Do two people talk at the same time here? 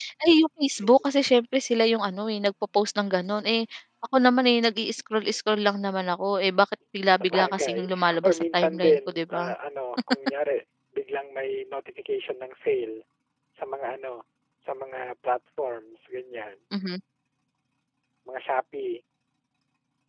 Yes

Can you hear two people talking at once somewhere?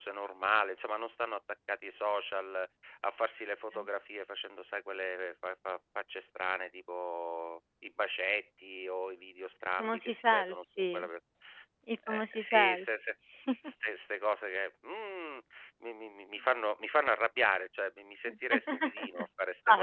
Yes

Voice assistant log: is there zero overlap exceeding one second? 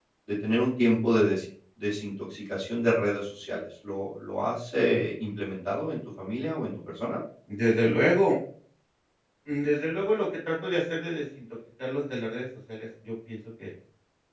Yes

